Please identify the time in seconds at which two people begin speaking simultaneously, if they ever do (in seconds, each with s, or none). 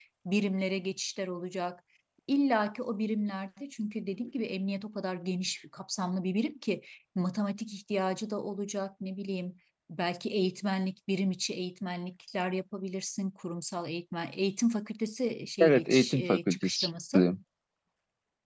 15.6 s